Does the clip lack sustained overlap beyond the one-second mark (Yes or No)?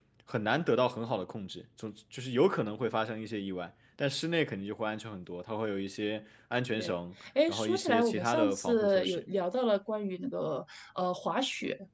No